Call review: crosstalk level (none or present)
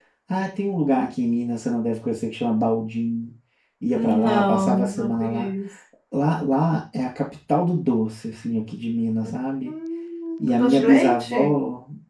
present